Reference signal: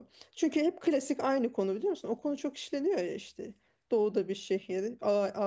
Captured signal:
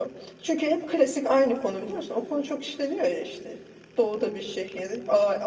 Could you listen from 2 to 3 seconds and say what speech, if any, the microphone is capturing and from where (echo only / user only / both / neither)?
echo only